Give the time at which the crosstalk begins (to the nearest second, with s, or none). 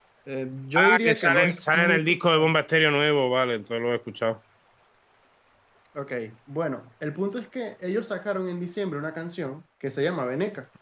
1 s